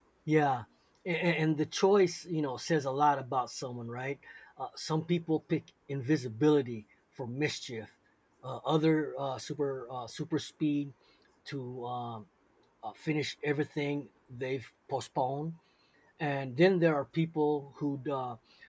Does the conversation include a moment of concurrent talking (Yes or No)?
No